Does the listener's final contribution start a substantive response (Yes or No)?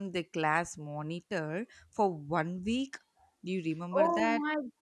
Yes